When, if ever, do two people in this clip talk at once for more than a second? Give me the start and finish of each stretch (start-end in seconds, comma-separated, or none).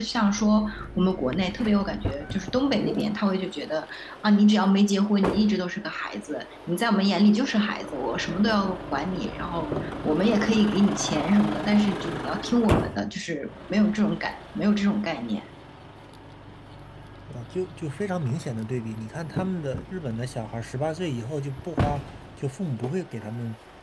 none